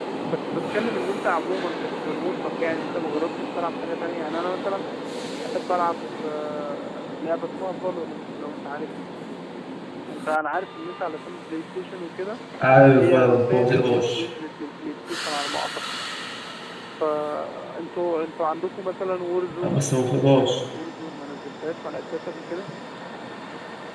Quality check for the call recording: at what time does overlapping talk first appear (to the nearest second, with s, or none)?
13 s